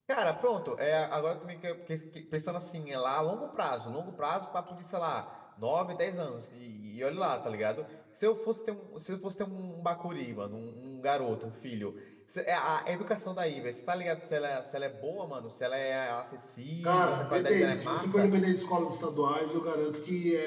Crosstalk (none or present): present